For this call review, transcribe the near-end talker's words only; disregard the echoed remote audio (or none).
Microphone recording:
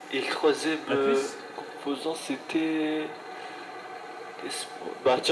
La puce,